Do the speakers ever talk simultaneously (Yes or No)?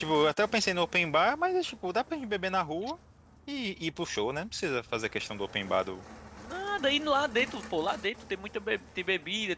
No